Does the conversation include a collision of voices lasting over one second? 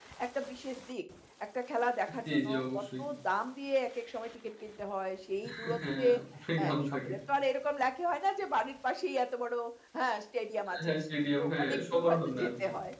Yes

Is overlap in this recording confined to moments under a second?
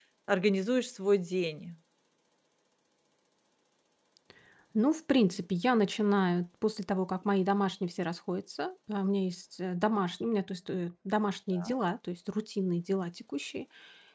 Yes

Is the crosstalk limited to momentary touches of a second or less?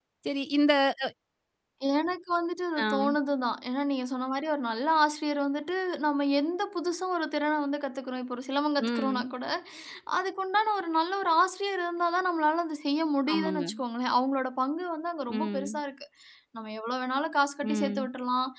Yes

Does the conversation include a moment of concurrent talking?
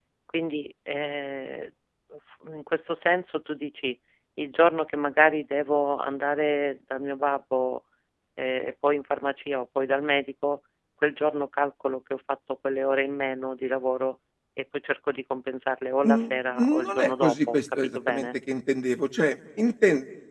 Yes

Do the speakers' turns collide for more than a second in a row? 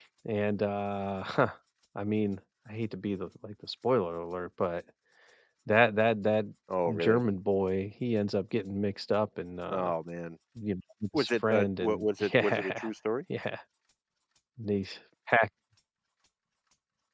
Yes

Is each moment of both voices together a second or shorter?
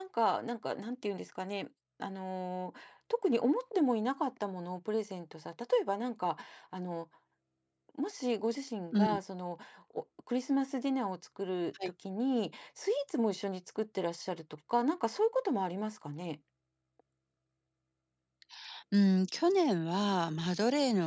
Yes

